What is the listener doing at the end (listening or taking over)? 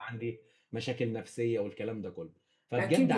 taking over